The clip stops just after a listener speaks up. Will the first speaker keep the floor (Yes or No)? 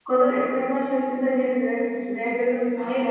No